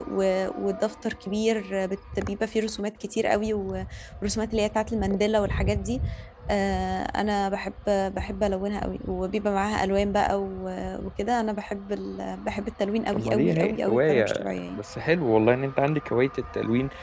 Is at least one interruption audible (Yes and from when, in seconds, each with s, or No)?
Yes, from 13.1 s